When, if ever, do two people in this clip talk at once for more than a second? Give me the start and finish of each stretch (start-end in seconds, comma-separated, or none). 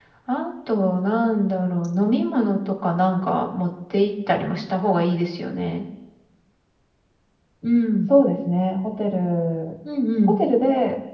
none